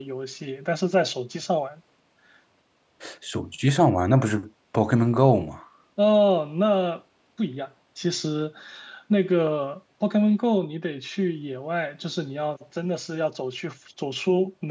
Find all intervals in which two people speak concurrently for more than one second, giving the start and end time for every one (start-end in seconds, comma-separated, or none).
none